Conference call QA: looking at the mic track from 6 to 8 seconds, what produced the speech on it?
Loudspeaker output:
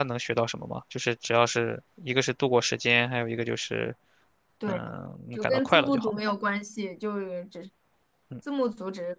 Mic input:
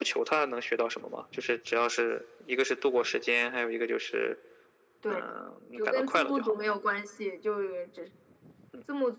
echo only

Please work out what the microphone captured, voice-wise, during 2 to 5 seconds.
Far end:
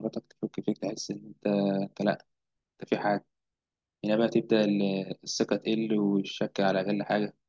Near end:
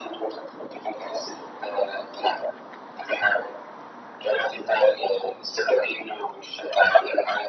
echo only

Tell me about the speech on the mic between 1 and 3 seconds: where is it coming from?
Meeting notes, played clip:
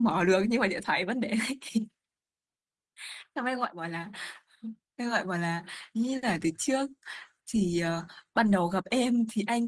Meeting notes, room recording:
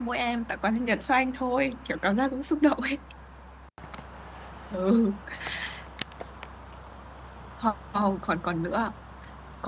user only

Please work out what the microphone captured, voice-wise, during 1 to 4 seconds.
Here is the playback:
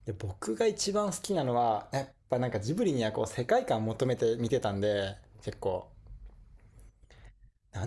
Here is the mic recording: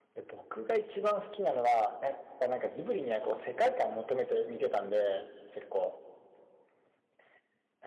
echo only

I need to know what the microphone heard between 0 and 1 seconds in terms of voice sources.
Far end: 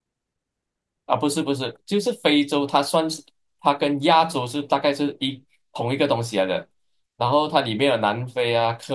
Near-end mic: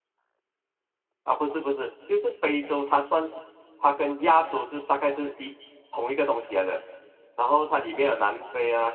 neither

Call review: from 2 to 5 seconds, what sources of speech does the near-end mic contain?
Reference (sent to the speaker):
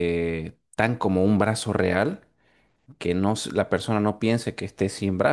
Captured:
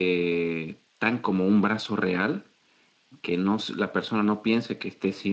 echo only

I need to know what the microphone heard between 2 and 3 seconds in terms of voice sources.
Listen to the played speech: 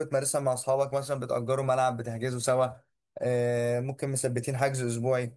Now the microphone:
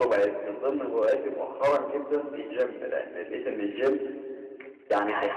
user only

